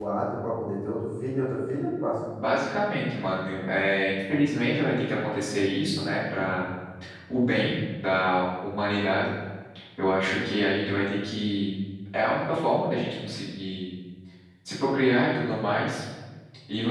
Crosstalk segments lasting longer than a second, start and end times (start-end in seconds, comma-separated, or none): none